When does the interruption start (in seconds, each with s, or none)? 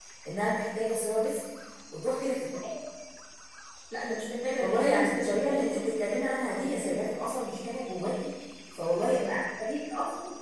4.6 s